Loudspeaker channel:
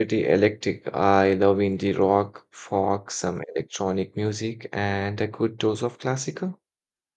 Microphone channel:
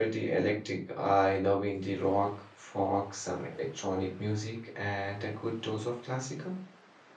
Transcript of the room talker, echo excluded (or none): none